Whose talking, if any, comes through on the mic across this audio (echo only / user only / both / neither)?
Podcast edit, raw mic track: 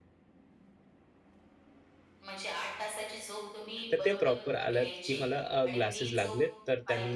both